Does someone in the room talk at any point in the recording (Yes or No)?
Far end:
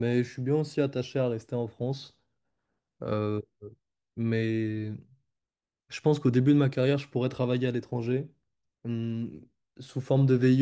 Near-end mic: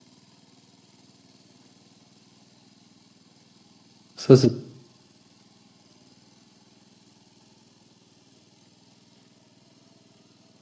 Yes